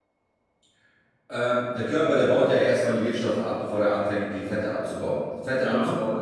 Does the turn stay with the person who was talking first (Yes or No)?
Yes